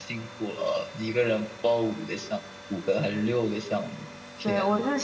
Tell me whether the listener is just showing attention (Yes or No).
No